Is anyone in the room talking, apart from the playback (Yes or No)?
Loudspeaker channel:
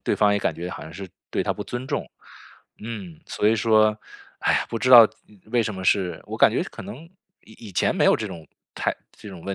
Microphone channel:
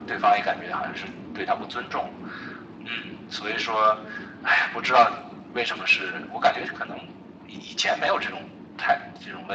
No